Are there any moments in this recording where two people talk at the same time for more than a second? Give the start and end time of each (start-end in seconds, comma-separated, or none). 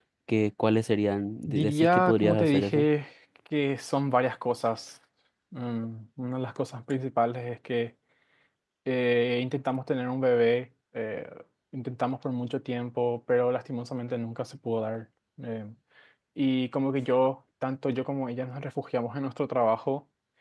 1.5-2.9